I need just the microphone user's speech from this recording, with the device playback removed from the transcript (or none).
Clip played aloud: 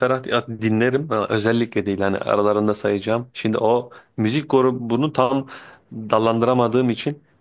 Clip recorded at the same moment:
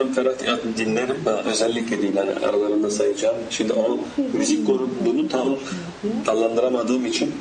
hem sözü hem müzikalitesi hoşuma gidiyor.